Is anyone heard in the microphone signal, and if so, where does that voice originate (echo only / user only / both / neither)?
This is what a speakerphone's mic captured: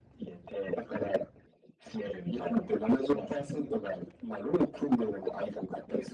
echo only